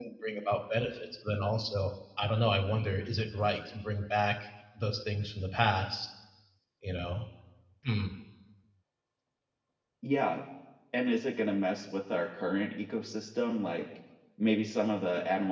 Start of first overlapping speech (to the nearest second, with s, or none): none